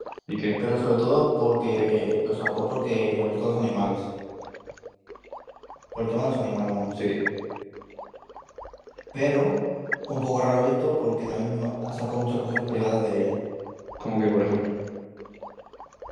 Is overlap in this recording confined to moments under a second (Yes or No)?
Yes